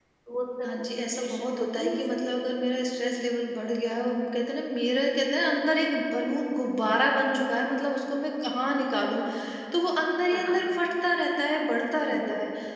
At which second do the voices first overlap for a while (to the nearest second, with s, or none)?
1 s